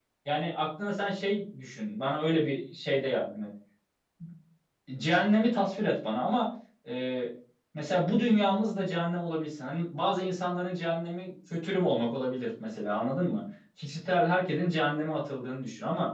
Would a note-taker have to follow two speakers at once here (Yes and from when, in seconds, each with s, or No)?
No